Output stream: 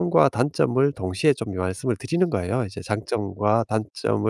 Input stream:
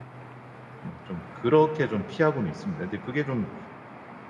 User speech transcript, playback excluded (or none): 뭐 좀 그렇게 좀 피하고는 있습니다. 근데 그게 좀